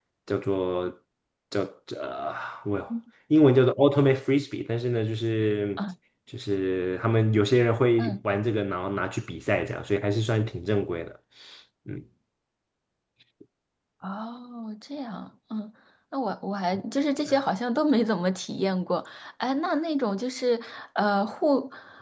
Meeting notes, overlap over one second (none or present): none